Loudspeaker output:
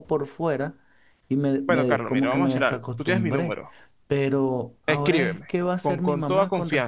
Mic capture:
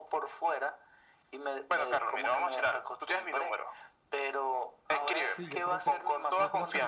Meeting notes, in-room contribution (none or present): present